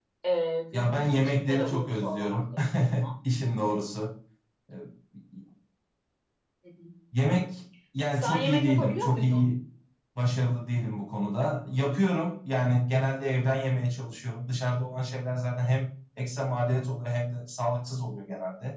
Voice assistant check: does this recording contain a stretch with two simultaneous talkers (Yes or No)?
Yes